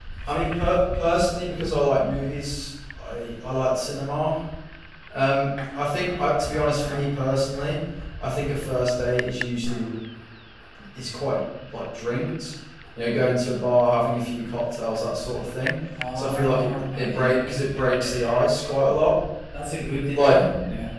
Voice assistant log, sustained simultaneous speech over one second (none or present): present